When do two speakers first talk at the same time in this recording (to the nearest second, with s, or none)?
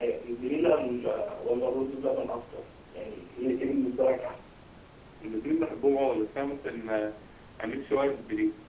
none